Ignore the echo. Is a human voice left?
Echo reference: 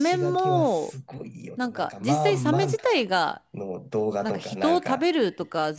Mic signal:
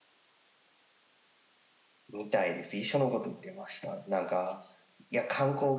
Yes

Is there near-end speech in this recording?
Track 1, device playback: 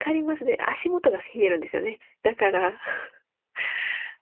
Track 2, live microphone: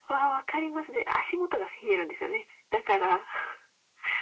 No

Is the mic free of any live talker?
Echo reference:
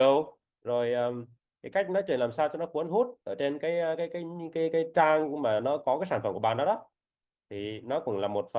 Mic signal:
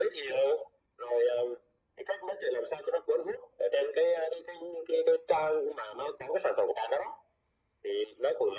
Yes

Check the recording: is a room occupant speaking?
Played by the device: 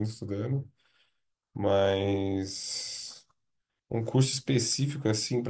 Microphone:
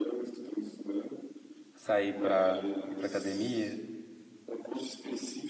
Yes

